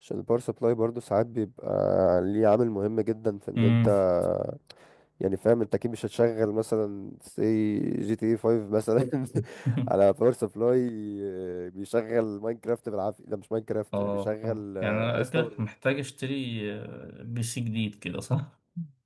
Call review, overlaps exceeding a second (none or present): present